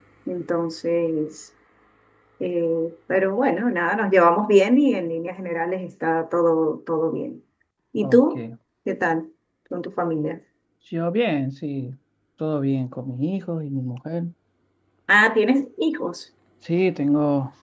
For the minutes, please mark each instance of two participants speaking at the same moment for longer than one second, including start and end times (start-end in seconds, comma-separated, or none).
none